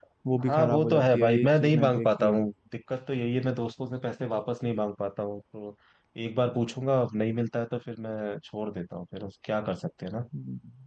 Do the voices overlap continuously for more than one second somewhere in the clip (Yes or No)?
Yes